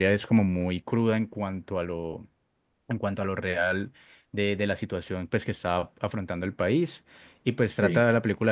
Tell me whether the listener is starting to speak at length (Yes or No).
No